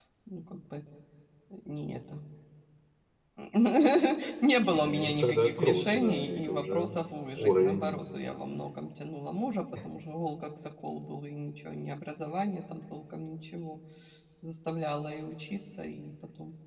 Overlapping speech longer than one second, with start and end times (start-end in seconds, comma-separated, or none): 4.8-7.0